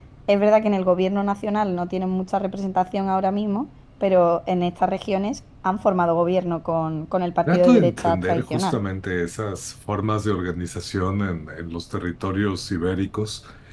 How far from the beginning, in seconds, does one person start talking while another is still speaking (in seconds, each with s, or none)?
7.5 s